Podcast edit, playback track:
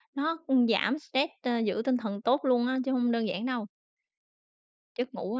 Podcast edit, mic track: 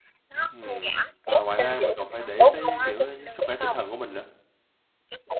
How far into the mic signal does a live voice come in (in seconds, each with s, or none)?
0.5 s